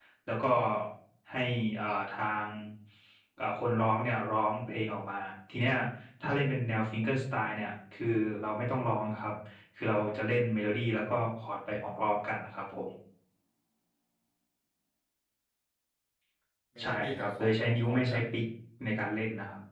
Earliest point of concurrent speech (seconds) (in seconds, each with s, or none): 16.8 s